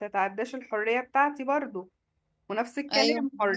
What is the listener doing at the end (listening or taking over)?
listening